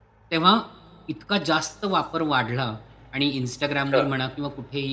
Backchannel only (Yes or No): Yes